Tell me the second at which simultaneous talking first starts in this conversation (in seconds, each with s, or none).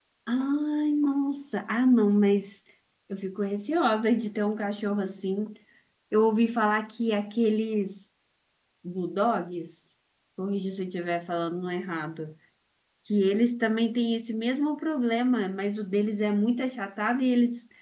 none